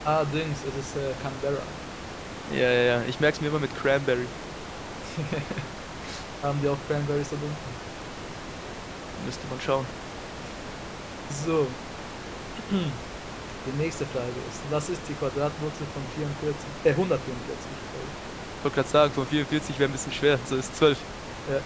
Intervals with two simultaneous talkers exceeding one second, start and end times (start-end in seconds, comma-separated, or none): none